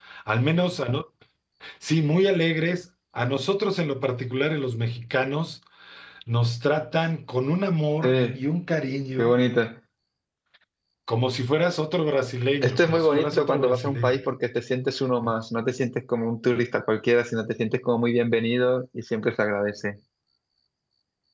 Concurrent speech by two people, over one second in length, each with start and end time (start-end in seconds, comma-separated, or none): 12.6-14.2